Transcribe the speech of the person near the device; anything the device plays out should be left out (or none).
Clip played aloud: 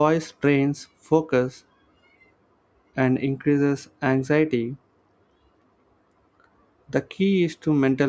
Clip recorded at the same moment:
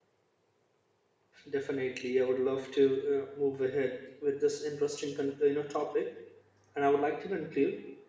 Definitely, I would love to uh, move ahead with this interesting con- you know topic, and I would like to conclude.